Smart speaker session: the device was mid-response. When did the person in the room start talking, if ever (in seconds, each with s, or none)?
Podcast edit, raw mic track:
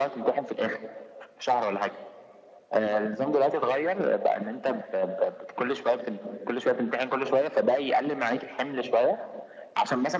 none